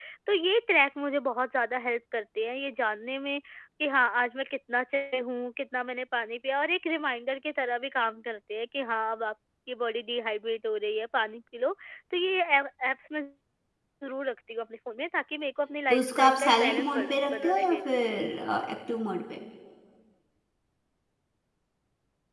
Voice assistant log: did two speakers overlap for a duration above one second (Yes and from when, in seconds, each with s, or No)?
Yes, from 15.9 s